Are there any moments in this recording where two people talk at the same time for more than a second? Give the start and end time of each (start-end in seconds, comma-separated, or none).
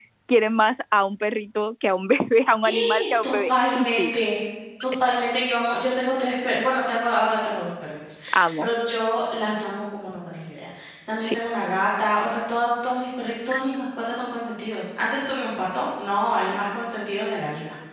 2.6-4.1